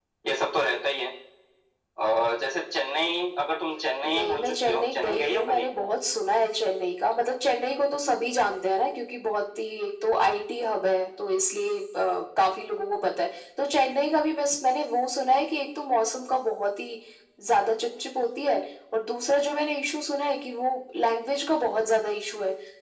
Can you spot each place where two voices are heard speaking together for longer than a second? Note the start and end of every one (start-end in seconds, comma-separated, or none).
4.0-5.7